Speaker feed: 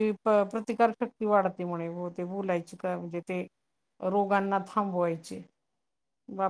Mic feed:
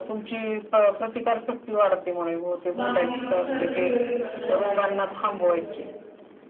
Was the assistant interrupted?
Yes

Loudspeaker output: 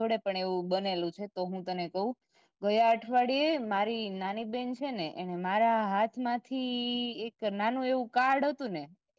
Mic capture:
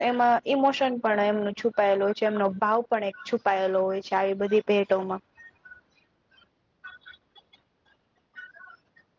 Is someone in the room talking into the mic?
Yes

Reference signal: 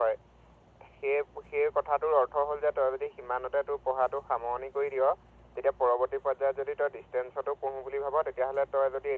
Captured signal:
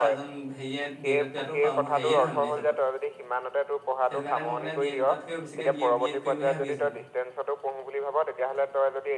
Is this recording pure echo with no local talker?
No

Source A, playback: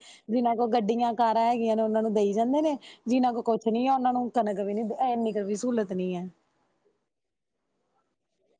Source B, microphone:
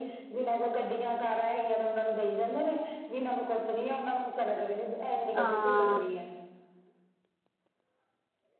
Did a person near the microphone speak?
Yes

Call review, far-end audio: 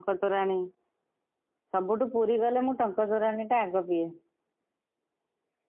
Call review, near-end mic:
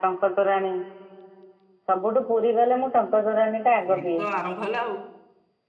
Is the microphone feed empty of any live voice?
No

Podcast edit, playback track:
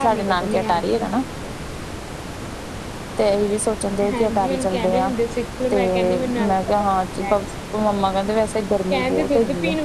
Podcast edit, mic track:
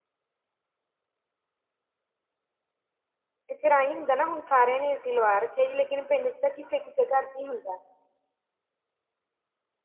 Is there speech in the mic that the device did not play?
Yes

